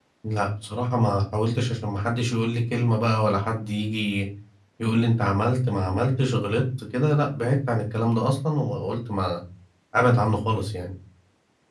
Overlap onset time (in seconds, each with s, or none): none